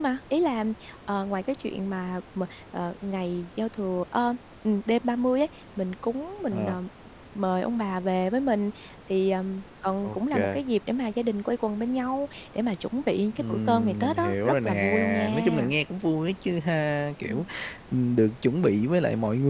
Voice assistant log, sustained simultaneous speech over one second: present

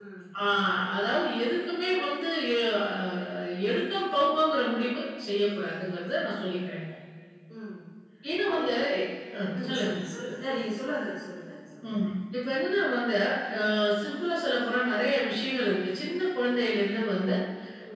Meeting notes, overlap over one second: none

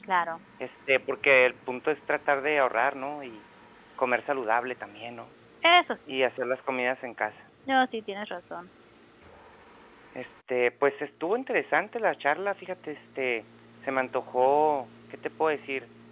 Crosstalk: none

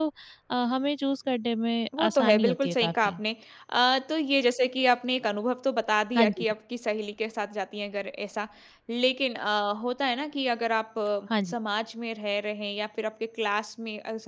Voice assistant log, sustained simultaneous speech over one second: present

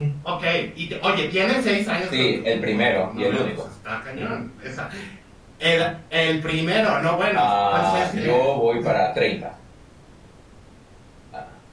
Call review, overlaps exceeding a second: present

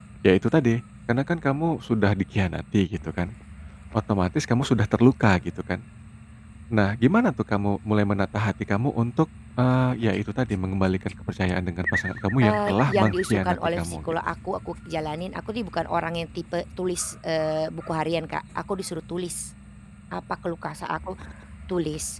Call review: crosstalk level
present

